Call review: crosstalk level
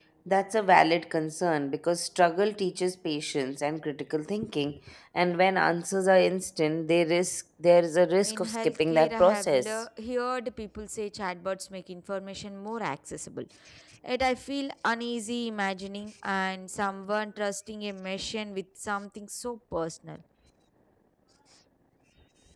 present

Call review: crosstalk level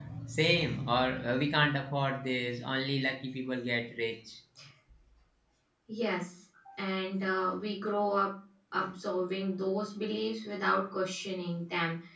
none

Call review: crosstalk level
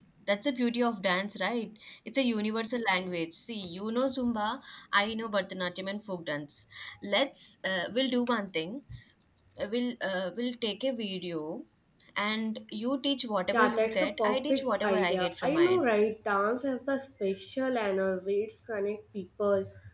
present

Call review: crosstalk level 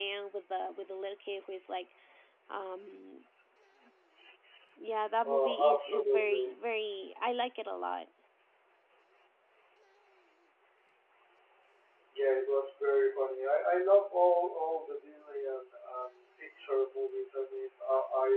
present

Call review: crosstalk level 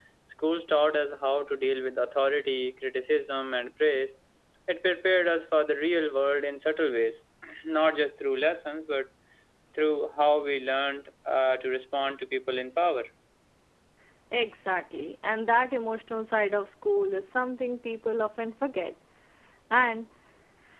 none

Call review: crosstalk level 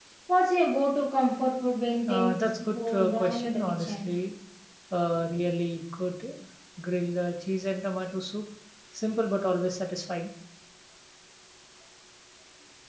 present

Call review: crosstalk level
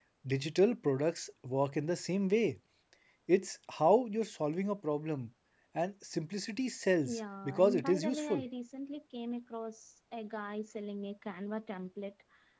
present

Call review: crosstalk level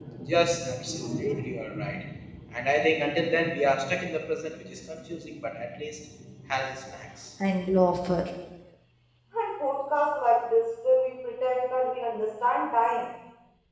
none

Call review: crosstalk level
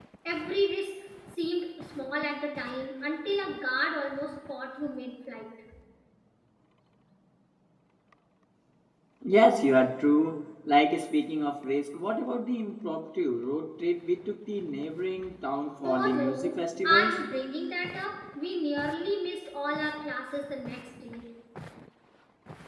present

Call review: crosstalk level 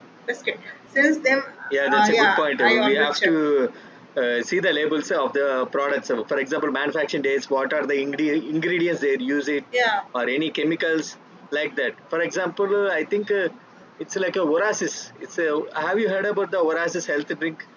present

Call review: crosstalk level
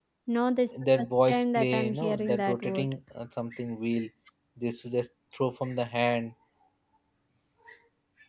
present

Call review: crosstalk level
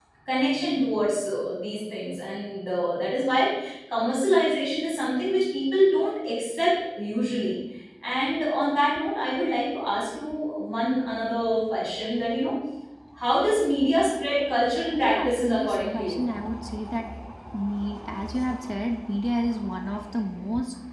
present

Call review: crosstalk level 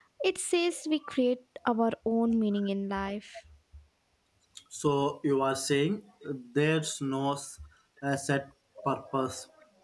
none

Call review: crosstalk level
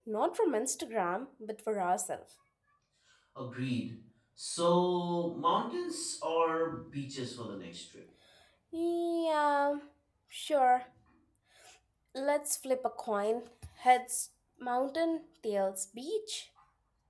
none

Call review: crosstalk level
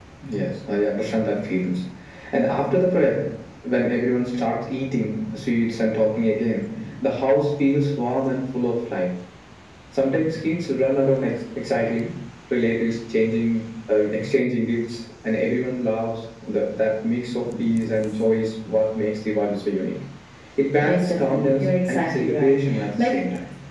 present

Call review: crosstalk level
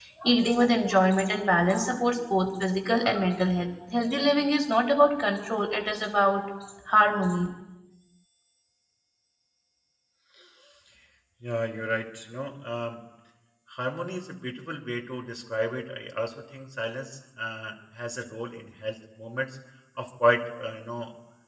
none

